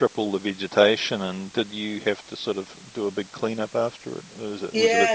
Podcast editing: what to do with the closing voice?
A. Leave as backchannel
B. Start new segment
B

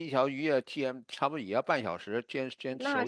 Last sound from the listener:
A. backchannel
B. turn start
A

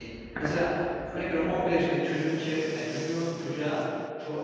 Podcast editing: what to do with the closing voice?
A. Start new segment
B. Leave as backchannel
B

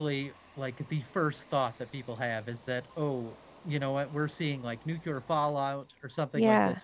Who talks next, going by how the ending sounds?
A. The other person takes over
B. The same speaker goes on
B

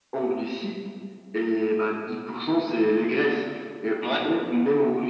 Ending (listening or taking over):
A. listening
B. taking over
A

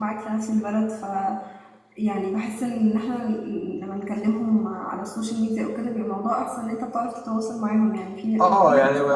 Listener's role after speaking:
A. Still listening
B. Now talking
B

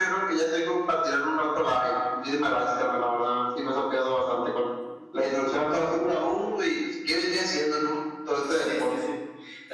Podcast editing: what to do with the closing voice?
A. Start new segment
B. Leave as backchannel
A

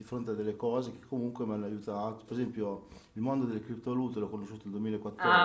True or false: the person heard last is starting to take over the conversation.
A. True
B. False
B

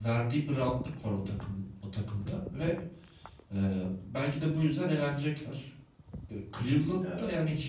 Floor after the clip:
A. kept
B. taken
A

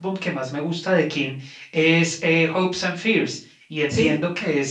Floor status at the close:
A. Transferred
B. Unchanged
B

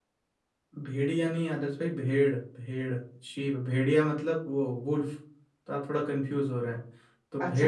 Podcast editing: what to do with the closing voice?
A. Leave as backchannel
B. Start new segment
B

